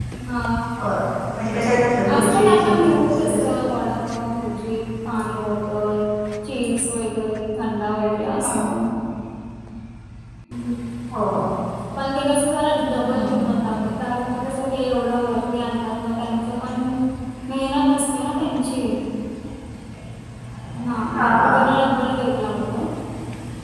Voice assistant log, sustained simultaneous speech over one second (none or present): present